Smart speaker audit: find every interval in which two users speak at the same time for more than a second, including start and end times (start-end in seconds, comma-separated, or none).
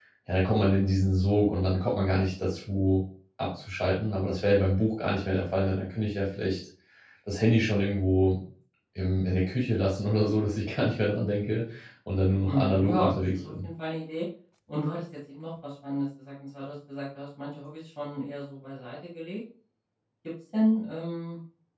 12.5-13.7